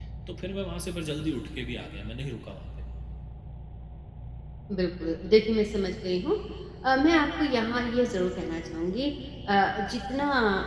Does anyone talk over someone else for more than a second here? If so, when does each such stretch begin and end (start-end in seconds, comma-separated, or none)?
none